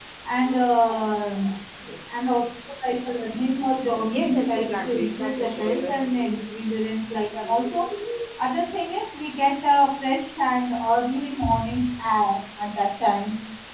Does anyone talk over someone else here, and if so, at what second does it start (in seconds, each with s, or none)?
4.0 s